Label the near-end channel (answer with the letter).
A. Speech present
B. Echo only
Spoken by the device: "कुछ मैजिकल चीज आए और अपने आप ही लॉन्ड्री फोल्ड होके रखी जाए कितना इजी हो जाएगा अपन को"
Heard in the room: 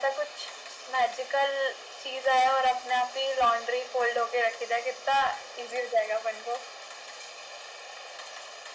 B